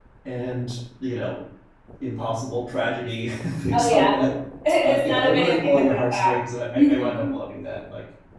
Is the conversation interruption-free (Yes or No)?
No